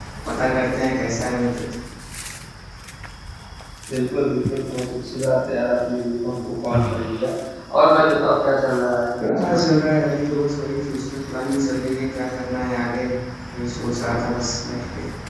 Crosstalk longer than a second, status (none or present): none